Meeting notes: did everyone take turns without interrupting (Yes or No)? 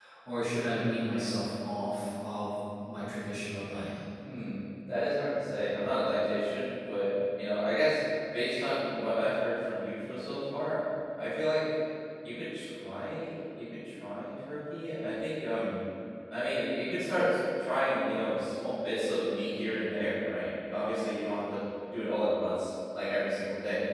Yes